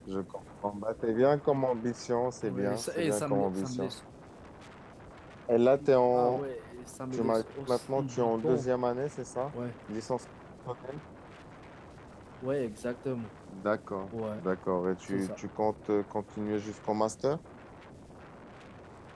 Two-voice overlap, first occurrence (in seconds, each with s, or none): 2.4 s